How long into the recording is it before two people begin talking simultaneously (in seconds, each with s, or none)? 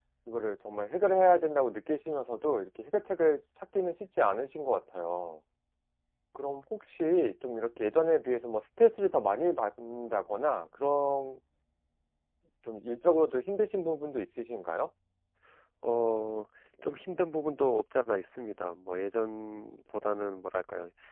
none